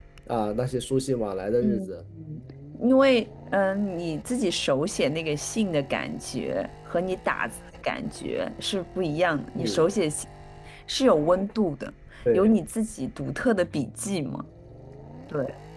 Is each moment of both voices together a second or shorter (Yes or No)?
Yes